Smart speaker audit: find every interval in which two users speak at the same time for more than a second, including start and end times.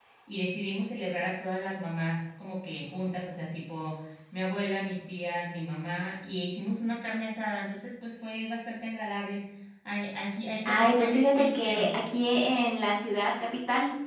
10.7-12.0

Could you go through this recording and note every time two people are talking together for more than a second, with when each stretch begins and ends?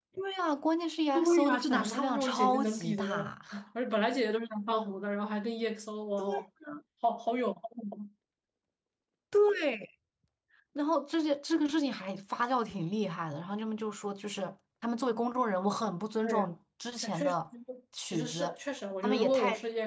1.2-3.4

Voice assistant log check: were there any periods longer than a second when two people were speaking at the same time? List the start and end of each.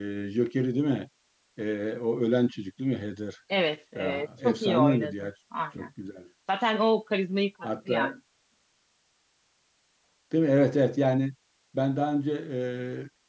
4.0-5.3

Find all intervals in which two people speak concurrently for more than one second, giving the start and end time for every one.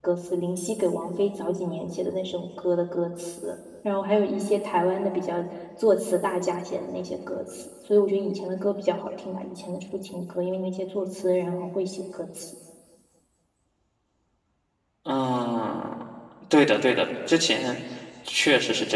none

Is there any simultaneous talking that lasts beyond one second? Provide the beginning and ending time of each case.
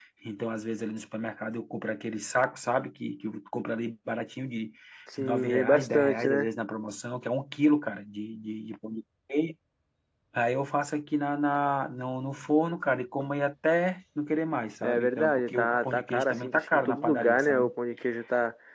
5.2-6.5, 14.8-17.7

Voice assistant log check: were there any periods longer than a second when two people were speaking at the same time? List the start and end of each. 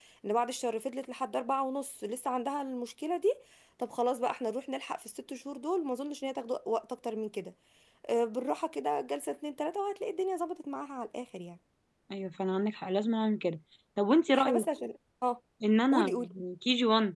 none

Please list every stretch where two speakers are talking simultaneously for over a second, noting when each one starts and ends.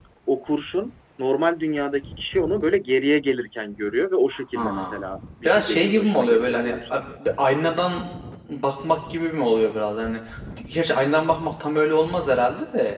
5.5-7.0

